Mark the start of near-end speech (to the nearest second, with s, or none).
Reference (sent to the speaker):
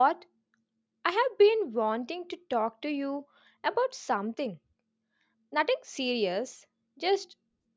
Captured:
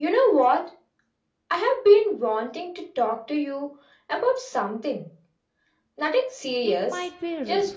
7 s